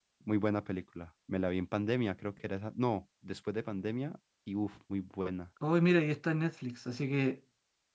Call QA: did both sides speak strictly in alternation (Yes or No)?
Yes